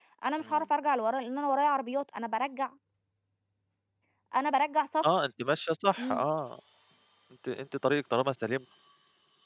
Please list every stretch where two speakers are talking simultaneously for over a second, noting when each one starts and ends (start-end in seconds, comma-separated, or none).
none